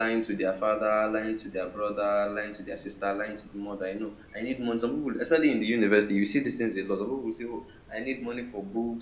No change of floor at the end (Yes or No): Yes